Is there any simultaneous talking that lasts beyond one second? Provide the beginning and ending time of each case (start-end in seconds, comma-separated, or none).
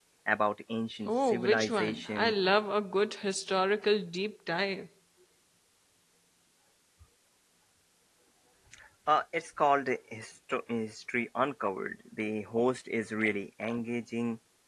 1.1-2.3